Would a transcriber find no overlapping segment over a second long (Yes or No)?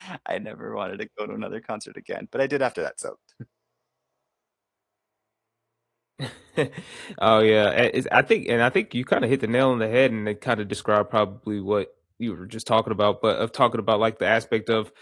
Yes